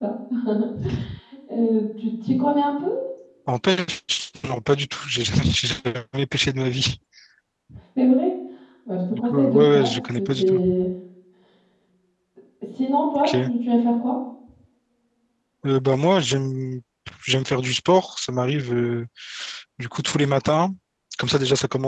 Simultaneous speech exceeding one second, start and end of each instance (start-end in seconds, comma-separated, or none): 9.1-10.6